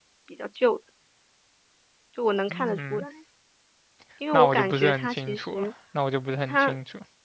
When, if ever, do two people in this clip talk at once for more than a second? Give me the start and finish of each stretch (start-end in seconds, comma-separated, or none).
4.3-5.7